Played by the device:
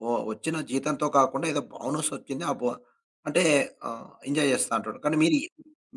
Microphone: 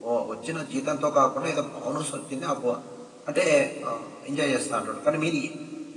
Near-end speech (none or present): none